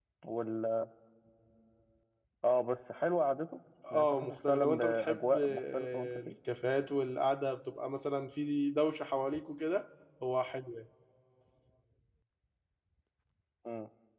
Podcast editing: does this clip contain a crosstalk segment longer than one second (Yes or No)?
Yes